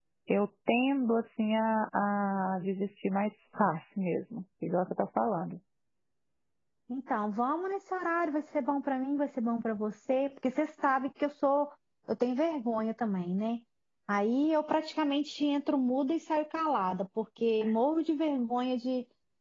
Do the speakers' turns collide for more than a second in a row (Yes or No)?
No